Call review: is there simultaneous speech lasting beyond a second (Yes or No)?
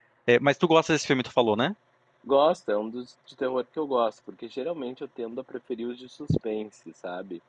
No